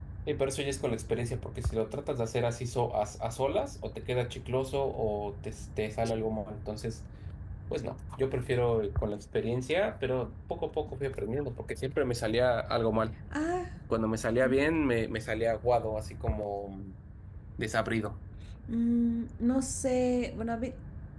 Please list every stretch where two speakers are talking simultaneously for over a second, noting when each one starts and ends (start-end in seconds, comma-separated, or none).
none